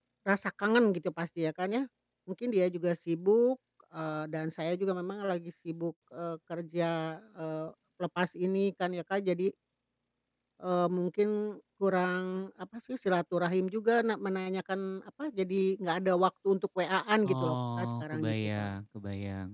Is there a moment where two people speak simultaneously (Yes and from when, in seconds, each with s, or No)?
Yes, from 17.2 s